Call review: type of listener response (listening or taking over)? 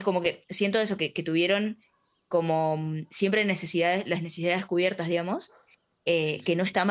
listening